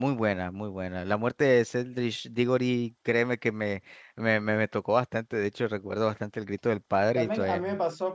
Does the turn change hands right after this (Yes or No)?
Yes